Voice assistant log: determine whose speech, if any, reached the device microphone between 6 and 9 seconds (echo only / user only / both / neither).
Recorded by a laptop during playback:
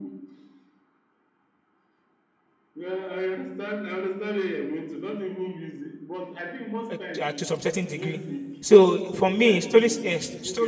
both